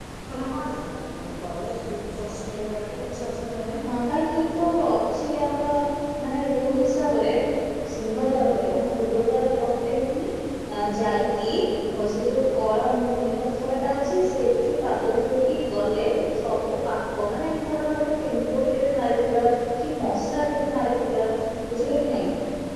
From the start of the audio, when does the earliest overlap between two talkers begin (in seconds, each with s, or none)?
none